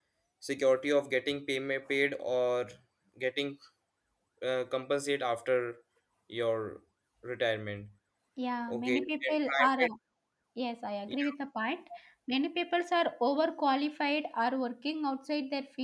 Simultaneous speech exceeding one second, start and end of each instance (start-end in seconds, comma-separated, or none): 8.7-9.9